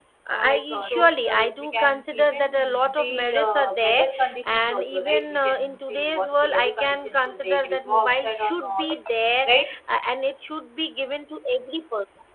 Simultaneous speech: Yes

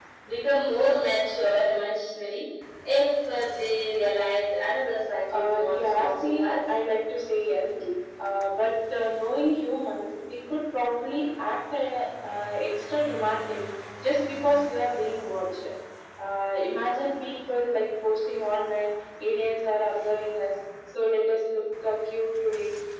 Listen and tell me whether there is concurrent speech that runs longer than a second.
Yes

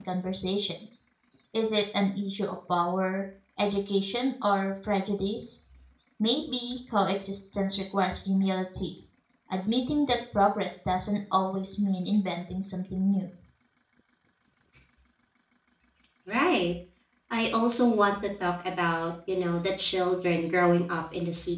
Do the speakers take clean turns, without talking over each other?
Yes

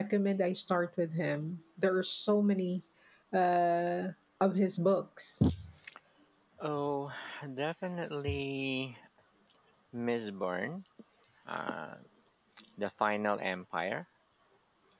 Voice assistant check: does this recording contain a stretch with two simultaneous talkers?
No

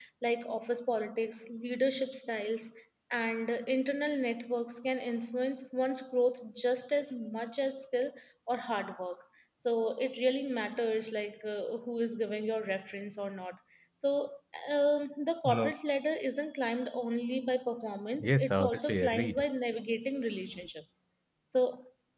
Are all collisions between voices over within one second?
No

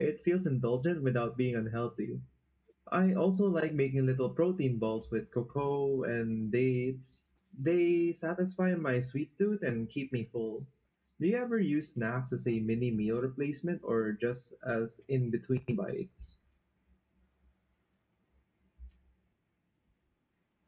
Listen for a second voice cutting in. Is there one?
No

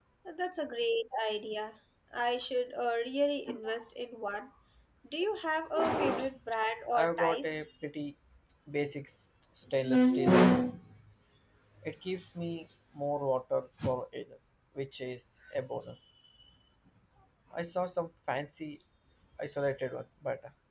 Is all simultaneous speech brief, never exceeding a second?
Yes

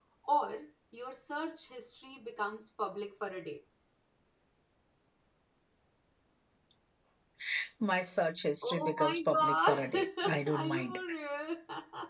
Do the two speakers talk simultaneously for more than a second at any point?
Yes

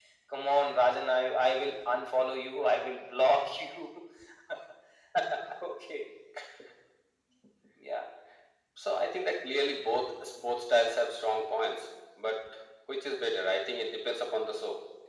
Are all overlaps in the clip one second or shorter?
Yes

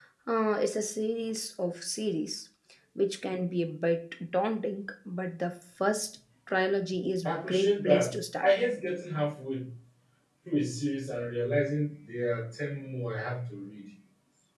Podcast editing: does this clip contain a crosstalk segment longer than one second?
Yes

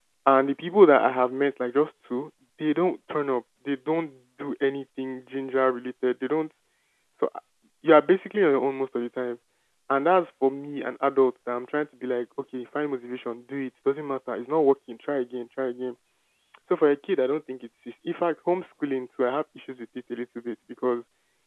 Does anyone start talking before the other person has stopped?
No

